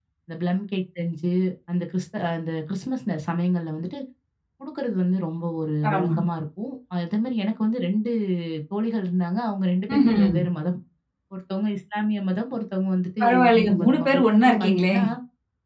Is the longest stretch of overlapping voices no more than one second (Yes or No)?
No